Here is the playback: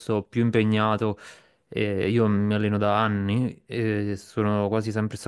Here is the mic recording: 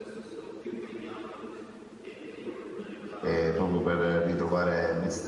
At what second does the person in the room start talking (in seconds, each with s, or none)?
3.2 s